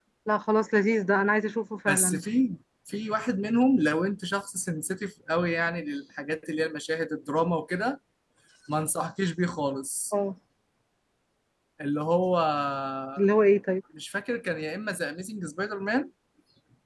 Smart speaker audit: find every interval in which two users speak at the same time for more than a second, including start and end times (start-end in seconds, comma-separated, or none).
none